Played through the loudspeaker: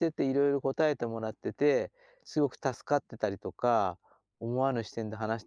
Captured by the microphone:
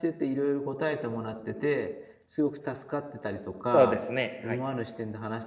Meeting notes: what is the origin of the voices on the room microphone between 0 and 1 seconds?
echo only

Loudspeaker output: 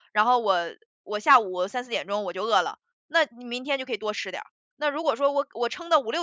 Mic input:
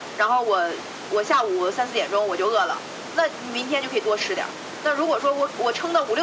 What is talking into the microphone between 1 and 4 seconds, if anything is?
echo only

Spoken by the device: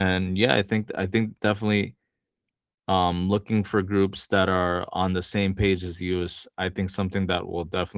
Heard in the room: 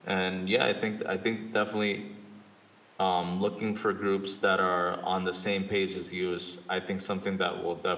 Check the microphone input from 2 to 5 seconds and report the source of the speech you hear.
echo only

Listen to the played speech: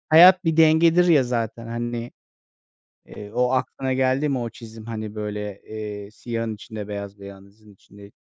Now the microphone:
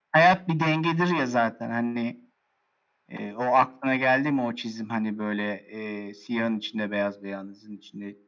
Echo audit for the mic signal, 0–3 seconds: echo only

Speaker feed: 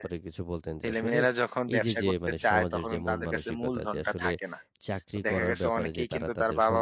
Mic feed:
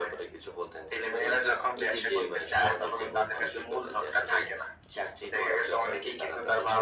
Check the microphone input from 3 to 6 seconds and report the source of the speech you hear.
echo only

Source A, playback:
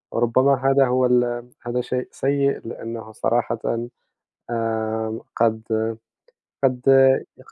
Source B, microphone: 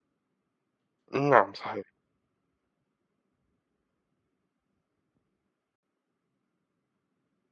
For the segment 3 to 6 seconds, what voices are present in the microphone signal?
neither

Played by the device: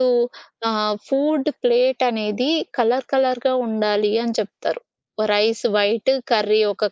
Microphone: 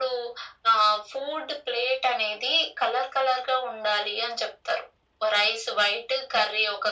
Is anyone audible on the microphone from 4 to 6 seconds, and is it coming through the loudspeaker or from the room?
echo only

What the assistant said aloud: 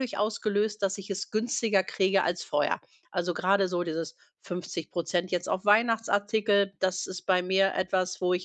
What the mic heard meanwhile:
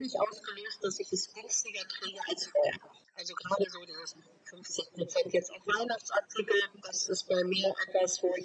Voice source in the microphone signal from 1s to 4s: echo only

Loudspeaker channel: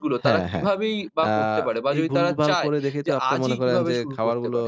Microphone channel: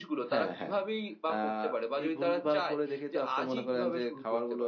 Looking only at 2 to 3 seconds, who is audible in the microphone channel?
echo only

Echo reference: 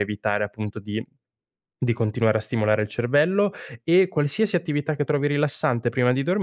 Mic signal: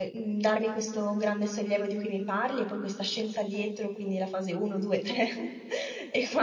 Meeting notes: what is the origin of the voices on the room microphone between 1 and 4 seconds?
user only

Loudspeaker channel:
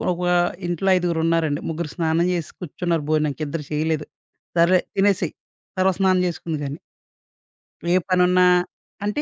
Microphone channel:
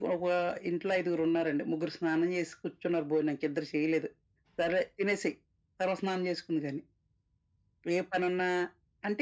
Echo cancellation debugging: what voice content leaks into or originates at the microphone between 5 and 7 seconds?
echo only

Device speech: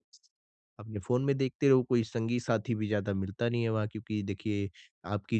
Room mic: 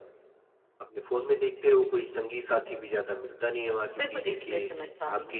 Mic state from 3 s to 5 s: both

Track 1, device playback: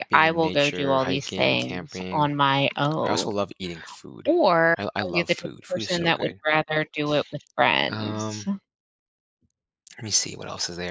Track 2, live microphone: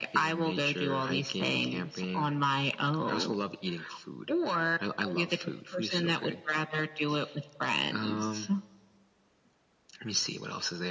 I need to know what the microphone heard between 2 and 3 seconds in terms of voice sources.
echo only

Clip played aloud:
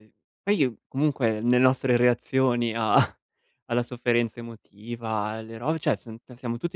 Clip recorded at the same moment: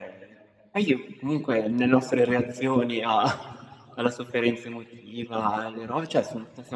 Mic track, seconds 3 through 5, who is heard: echo only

